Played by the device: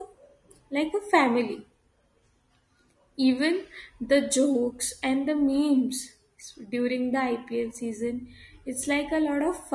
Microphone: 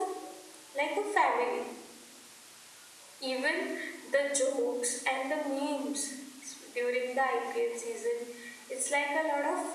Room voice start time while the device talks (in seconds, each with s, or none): none